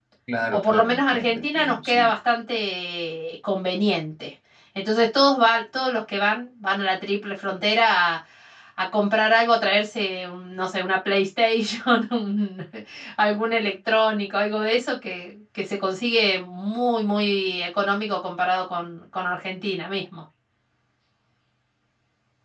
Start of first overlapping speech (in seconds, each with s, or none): 0.5 s